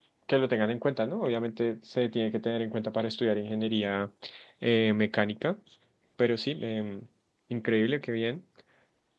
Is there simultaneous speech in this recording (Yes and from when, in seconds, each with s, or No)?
No